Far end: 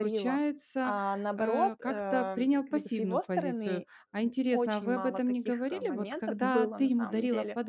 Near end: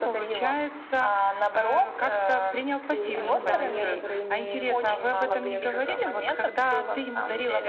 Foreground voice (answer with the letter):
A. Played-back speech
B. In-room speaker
A